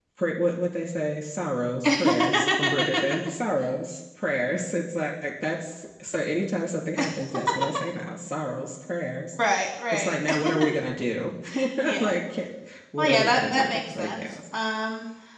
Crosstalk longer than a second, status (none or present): present